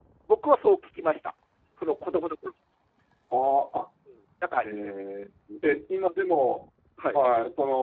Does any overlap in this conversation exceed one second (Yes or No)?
No